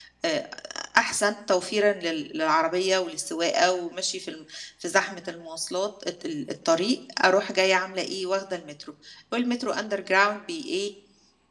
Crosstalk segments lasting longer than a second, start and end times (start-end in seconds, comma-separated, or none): none